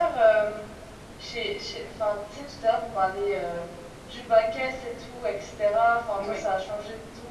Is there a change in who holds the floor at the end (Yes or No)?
No